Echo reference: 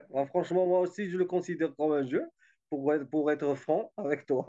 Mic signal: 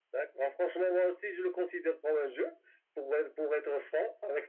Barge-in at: none

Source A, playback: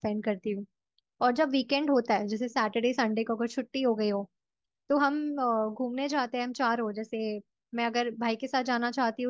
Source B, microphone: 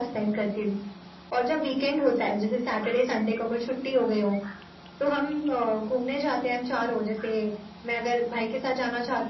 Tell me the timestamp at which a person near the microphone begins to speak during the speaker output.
none

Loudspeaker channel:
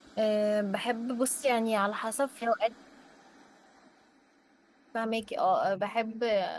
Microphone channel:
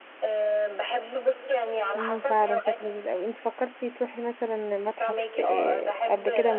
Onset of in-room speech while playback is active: 2.0 s

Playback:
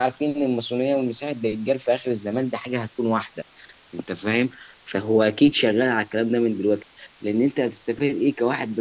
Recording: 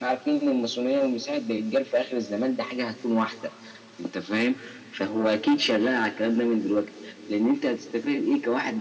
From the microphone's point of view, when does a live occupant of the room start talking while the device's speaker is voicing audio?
none

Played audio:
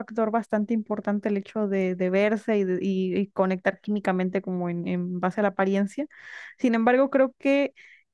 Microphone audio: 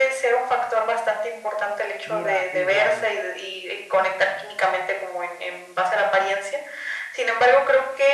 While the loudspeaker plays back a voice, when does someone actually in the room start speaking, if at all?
2.0 s

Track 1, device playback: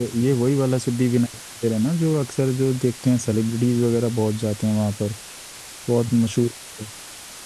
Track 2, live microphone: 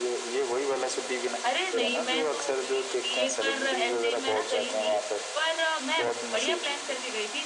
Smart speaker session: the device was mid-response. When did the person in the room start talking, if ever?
1.5 s

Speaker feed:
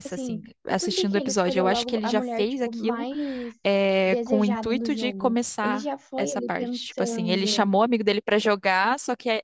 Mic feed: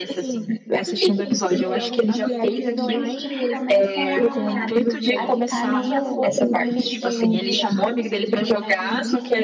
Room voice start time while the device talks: 2.4 s

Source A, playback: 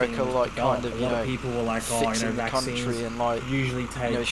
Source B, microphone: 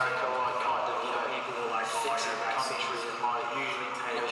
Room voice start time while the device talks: none

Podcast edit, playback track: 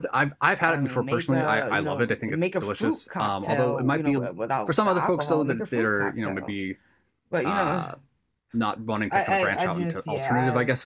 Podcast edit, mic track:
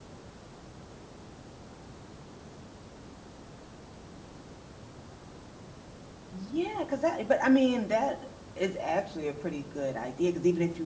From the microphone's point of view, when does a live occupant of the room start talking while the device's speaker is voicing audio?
6.3 s

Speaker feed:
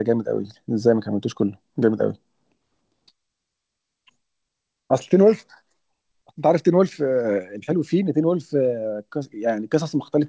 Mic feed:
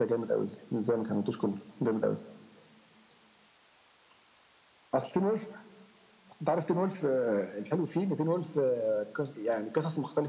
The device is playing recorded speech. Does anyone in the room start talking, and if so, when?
none

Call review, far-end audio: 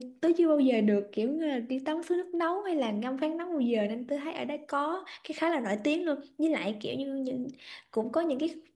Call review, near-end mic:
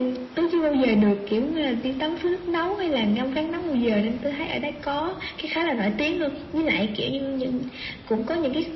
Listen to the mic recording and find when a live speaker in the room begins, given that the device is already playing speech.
none

